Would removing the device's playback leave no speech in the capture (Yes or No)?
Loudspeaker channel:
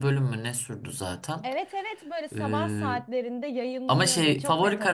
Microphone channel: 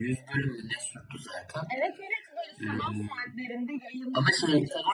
Yes